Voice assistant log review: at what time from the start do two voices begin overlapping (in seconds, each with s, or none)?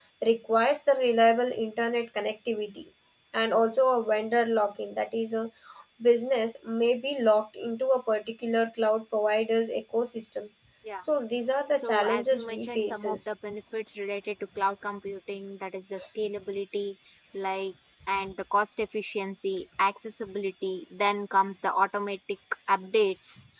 11.7 s